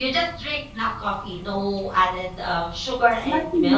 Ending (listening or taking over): taking over